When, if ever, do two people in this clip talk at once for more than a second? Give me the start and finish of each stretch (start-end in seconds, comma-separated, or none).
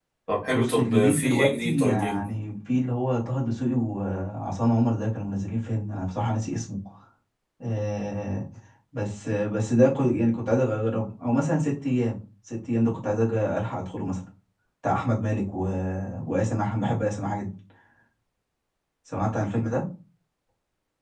0.5-2.2